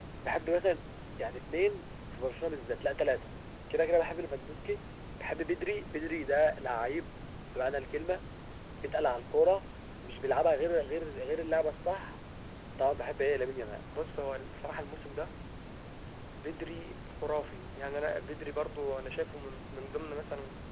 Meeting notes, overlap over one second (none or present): none